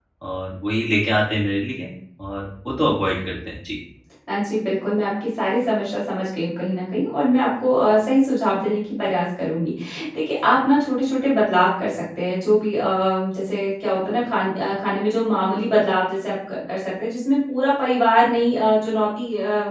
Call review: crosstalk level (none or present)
none